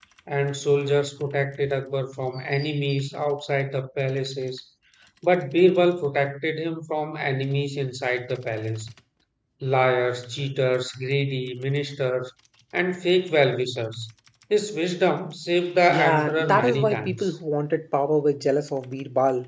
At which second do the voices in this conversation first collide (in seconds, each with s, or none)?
15.9 s